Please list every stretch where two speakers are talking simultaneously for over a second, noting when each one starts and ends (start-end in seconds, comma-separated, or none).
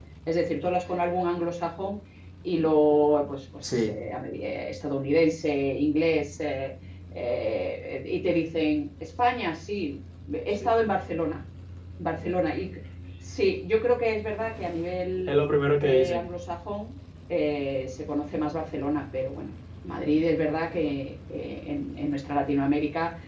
none